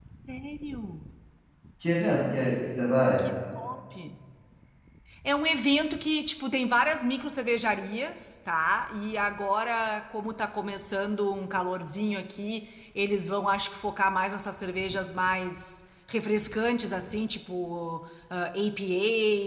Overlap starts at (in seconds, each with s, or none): none